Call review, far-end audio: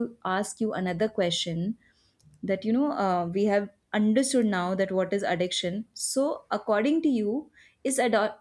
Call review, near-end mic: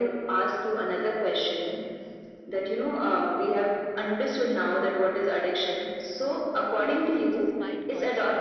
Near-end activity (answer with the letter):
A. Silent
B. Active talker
B